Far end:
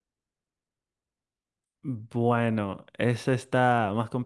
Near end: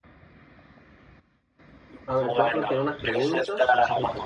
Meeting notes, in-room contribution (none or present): present